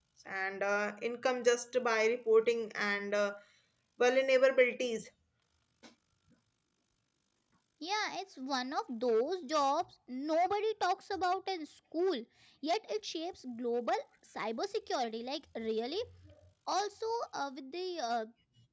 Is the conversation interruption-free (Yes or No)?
Yes